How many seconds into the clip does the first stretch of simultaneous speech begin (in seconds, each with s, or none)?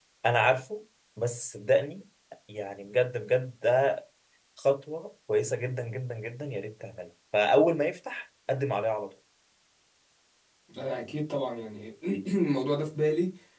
none